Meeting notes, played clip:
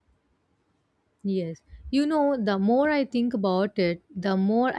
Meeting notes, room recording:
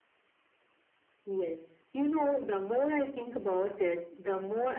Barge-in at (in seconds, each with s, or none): none